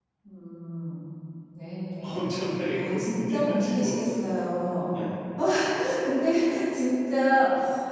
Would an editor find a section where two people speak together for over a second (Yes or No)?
Yes